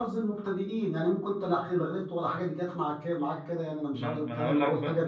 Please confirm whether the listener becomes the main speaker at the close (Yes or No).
Yes